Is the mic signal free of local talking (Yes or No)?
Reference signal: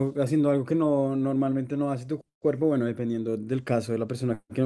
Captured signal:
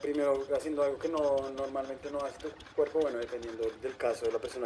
Yes